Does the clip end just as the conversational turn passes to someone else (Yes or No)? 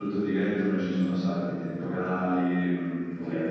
No